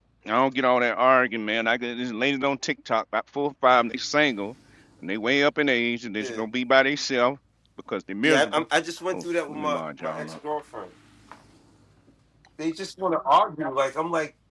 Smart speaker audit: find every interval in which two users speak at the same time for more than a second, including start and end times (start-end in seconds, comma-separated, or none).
9.1-10.4